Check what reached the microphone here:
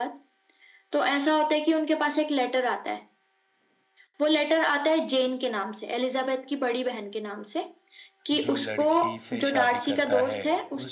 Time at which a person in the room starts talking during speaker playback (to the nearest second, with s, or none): 8 s